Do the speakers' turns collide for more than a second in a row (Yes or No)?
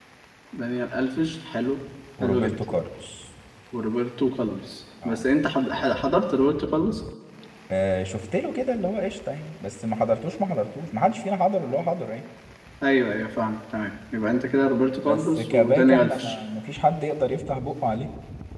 Yes